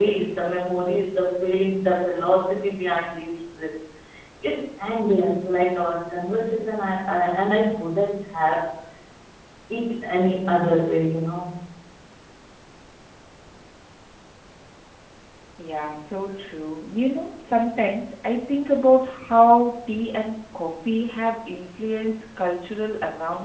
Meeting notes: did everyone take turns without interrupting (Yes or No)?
Yes